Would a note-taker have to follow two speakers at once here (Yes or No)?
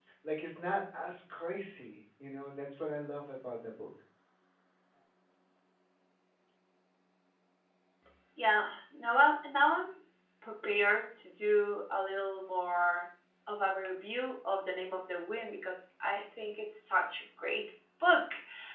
No